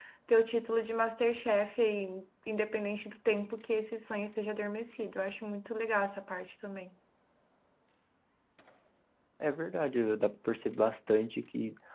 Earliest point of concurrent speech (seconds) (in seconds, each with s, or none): none